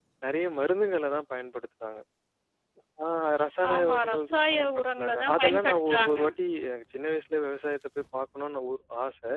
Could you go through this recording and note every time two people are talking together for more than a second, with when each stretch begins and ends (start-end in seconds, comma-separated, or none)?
3.7-6.2